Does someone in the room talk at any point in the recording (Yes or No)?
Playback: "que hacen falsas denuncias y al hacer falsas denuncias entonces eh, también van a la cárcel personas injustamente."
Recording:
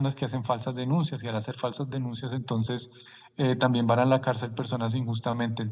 No